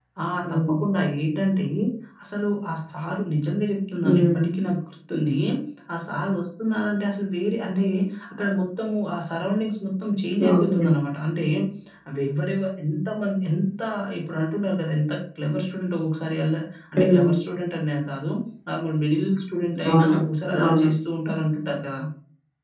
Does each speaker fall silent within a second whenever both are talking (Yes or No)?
Yes